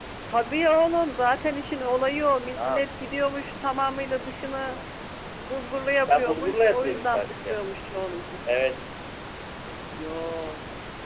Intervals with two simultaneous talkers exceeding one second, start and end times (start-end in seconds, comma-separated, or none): 6.1-7.6